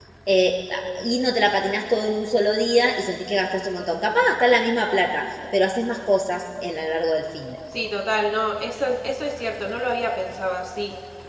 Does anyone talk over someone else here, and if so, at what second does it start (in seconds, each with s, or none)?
none